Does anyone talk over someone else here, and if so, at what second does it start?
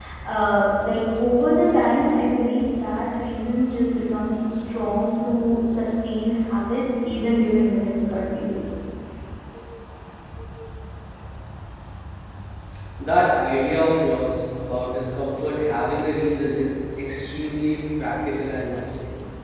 none

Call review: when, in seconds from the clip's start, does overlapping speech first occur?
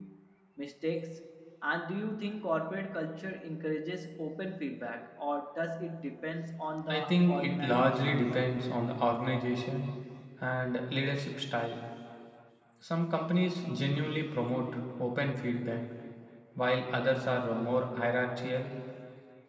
6.9 s

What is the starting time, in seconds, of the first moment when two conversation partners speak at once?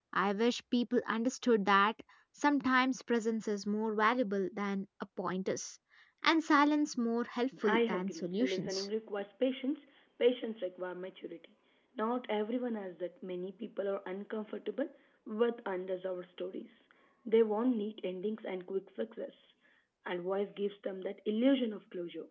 7.6 s

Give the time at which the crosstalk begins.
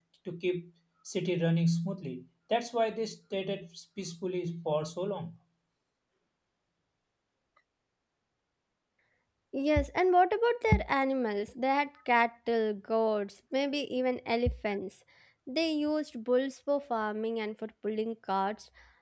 none

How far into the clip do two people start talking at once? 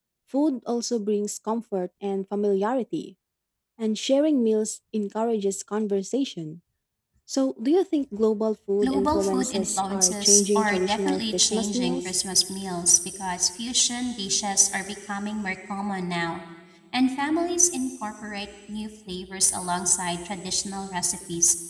8.8 s

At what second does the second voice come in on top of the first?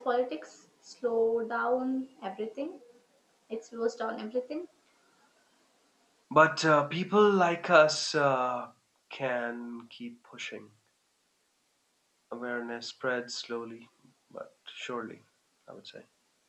none

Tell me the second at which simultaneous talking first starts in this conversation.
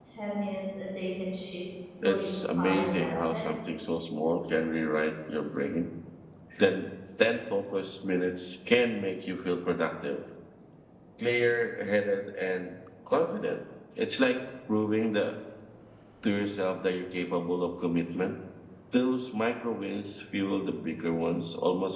2.0 s

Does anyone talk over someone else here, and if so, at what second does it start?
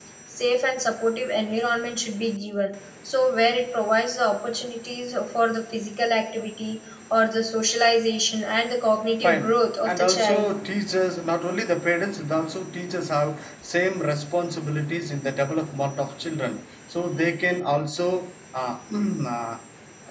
9.2 s

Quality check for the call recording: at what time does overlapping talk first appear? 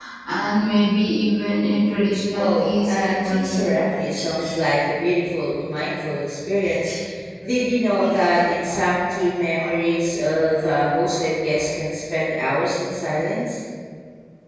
2.3 s

